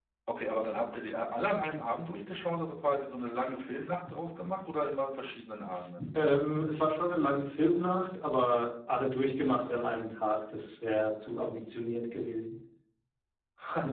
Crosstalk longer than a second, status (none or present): none